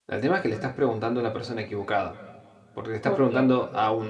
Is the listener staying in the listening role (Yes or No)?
Yes